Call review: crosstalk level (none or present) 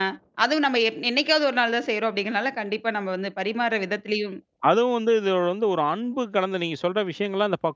none